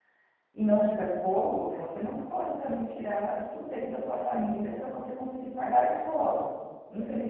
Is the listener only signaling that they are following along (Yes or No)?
Yes